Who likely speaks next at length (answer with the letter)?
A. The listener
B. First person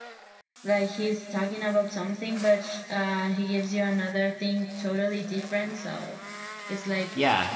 B